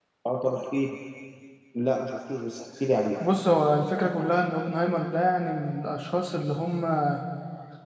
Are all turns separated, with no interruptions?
Yes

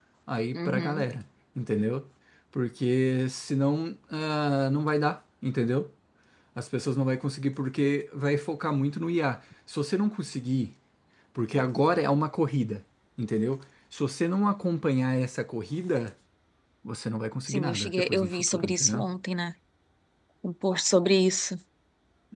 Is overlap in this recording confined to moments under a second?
No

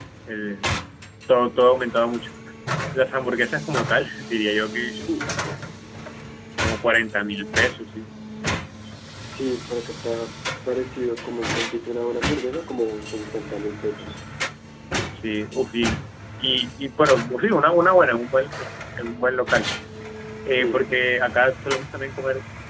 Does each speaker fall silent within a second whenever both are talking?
Yes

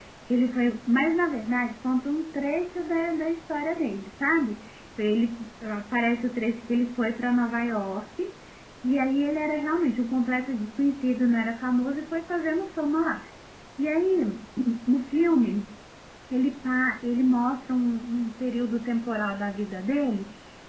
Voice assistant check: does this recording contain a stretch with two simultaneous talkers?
No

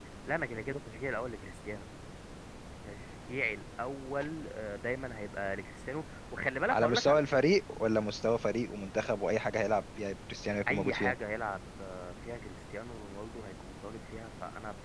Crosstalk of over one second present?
No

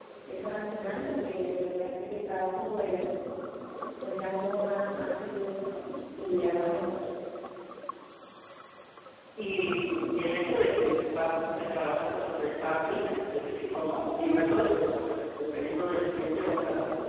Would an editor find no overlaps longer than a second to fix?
Yes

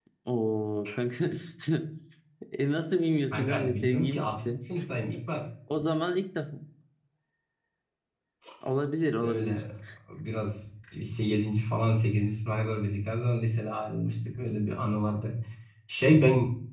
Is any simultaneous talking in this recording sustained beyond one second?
Yes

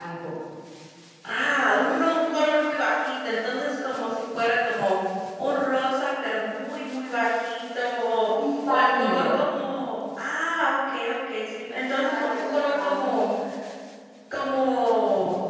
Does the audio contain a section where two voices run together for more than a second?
Yes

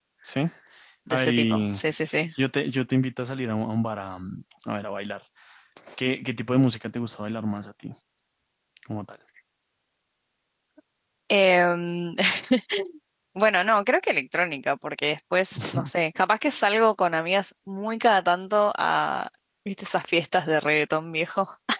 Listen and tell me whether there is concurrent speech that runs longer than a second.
Yes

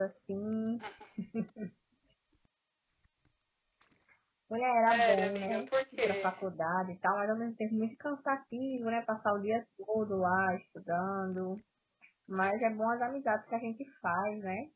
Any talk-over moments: Yes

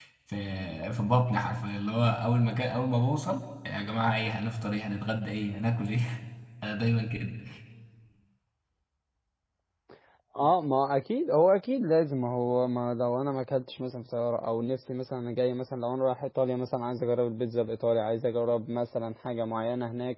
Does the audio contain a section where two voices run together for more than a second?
No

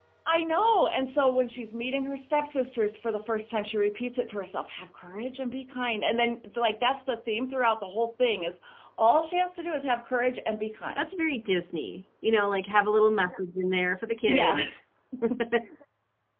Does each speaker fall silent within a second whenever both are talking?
Yes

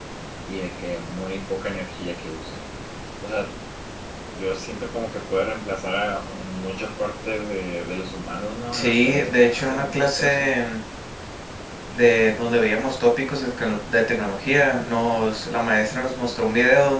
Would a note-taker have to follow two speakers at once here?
Yes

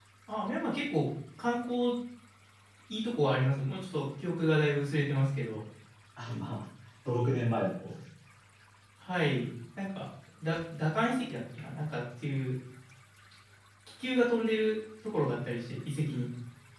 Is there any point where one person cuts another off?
No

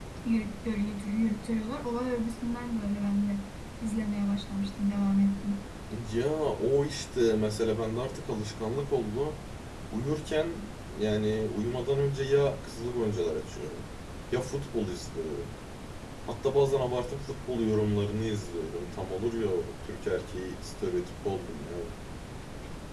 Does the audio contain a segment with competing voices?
No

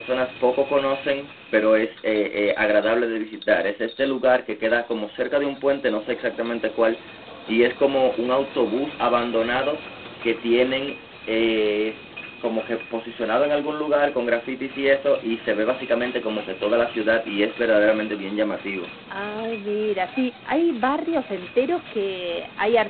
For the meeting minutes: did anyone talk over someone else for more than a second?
No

